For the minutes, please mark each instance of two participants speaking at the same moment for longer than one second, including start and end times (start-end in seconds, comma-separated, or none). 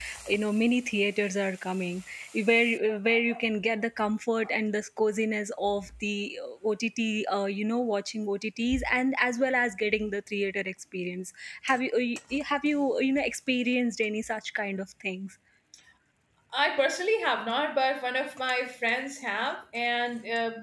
none